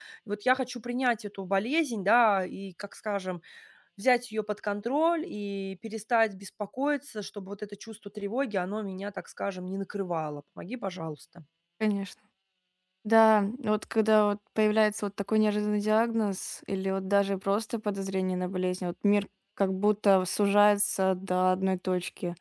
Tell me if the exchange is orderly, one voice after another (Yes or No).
Yes